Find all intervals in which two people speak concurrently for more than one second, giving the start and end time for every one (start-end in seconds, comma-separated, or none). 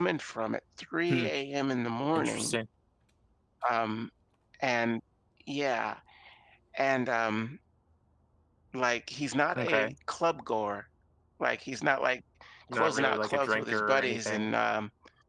12.7-14.5